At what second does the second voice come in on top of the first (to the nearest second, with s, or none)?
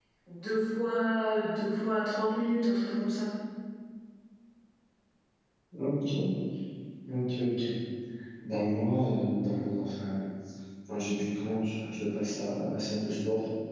none